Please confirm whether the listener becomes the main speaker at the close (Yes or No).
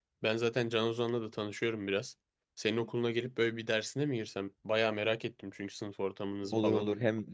Yes